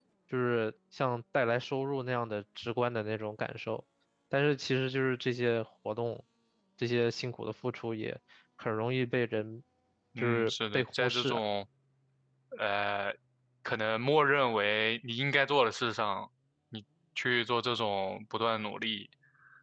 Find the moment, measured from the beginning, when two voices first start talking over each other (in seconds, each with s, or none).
10.2 s